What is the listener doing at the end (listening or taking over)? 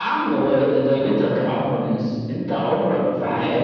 taking over